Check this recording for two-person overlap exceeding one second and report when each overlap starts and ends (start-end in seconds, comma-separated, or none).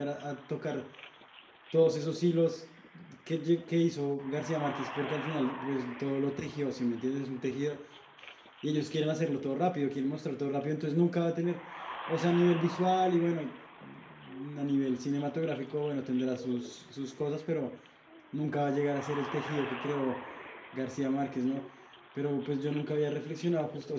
none